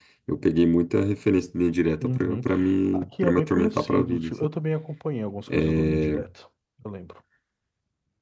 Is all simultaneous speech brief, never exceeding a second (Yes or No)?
No